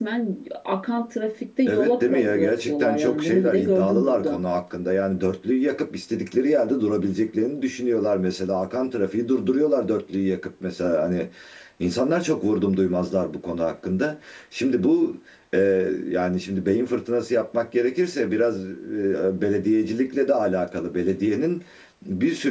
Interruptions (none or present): present